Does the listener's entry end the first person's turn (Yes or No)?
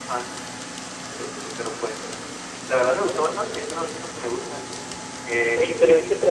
Yes